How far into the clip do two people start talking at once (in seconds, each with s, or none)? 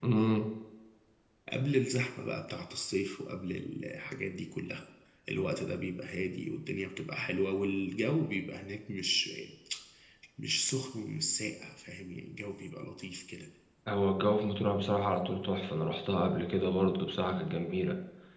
none